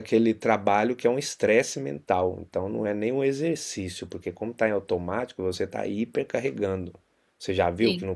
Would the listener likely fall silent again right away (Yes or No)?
Yes